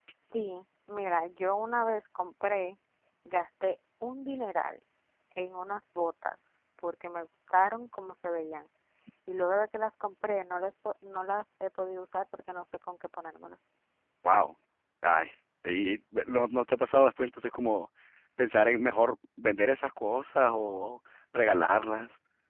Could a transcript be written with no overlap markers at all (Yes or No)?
Yes